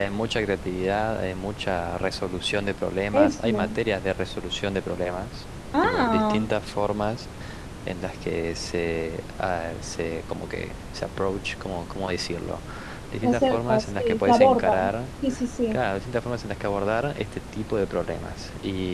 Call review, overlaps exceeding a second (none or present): present